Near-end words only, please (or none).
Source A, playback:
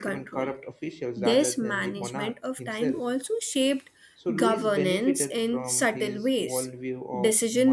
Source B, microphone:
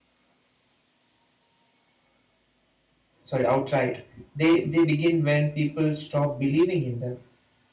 Sorry, outright. They they begin when people stop believing in them.